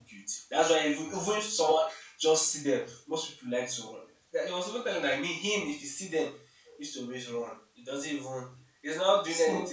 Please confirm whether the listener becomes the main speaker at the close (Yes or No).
No